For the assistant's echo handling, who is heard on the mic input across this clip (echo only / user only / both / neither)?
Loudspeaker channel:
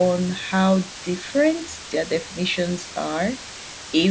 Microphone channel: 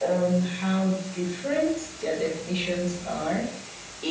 echo only